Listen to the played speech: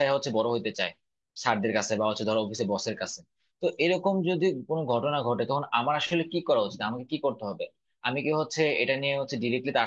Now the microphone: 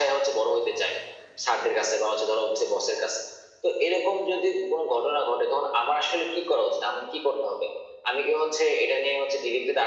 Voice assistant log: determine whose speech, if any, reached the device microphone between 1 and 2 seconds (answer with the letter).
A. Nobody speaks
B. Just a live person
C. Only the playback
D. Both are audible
C